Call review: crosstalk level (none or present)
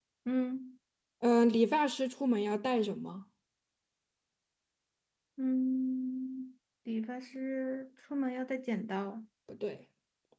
none